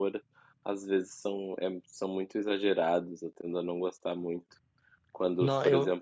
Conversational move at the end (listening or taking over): listening